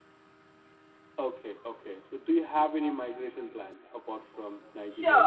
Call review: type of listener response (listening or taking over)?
taking over